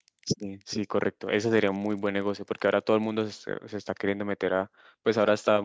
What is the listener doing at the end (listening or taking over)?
listening